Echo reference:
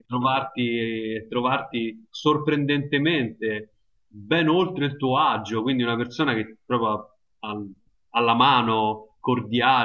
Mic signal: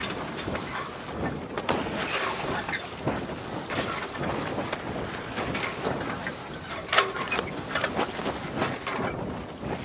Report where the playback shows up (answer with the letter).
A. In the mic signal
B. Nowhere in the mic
B